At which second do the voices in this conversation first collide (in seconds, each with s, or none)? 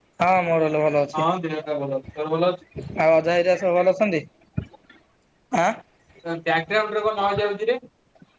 none